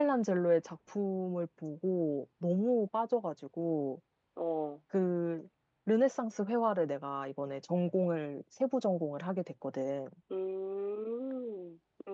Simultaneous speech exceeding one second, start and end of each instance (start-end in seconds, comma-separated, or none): none